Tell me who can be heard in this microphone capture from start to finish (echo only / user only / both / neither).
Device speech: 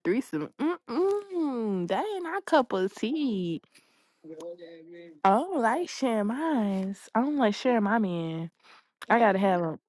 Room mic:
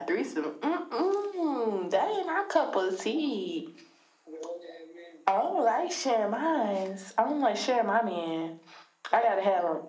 echo only